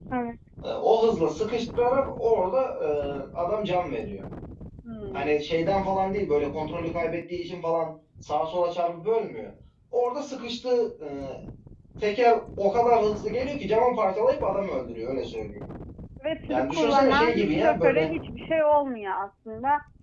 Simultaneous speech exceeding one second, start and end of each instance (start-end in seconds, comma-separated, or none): 16.5-18.1